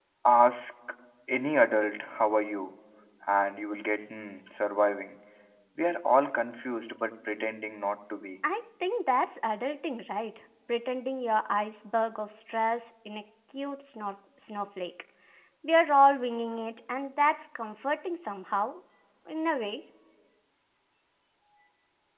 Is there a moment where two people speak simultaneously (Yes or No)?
No